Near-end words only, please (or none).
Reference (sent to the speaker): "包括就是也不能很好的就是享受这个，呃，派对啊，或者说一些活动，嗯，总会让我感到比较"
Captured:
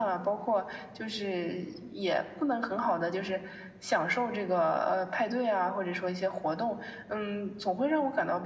none